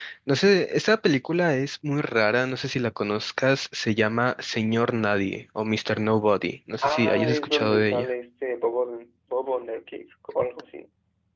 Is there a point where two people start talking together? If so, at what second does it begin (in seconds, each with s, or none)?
6.8 s